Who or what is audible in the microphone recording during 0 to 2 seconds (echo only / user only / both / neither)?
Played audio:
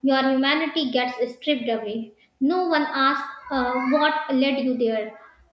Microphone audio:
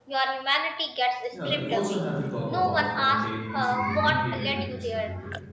both